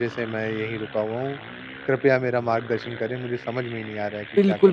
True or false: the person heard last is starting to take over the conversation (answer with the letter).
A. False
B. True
B